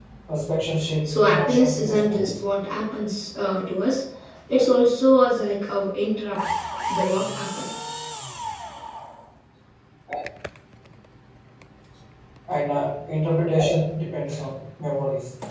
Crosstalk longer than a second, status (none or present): present